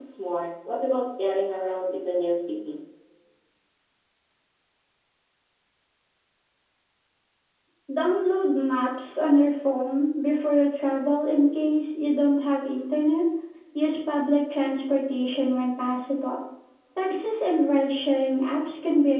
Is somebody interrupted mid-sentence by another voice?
No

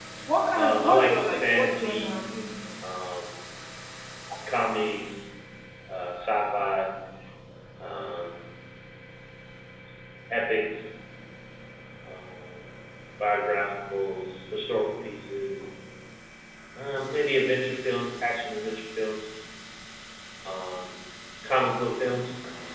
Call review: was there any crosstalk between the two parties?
Yes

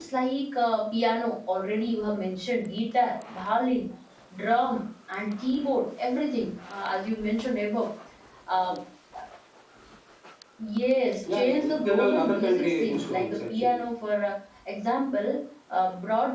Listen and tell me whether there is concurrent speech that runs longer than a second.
Yes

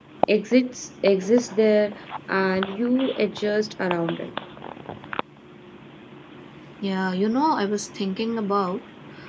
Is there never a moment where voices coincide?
Yes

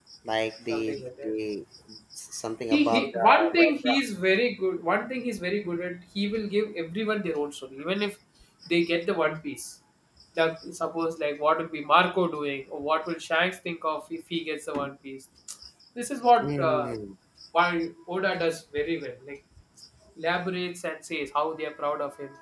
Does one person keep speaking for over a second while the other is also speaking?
Yes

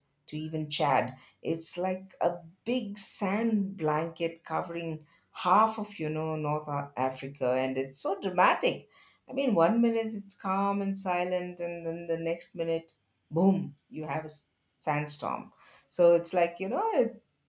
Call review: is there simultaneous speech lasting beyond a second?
No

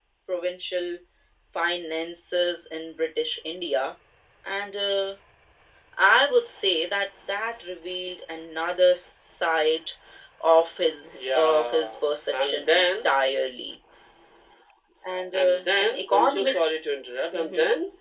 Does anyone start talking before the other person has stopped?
Yes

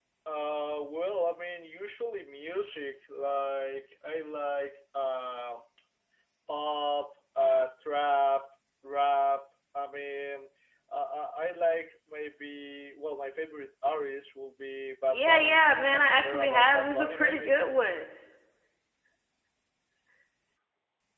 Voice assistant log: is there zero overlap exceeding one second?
No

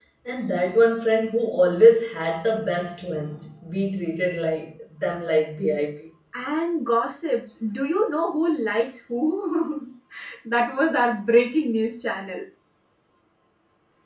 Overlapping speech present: No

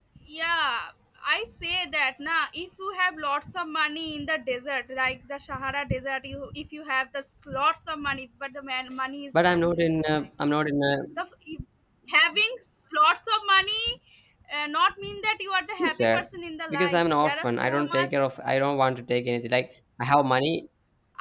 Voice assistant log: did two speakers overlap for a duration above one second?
Yes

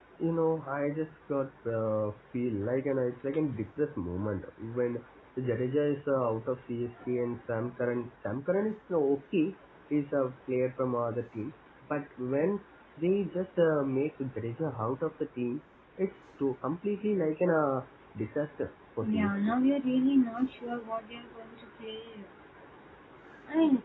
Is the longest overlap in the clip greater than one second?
No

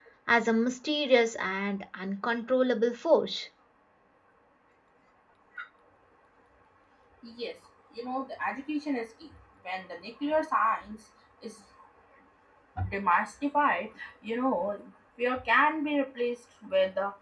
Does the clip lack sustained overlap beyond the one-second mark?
Yes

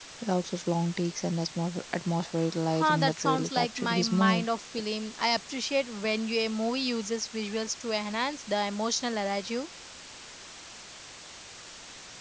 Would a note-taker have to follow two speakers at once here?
Yes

